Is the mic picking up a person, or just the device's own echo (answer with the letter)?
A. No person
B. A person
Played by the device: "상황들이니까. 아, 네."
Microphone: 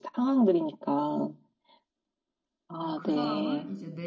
B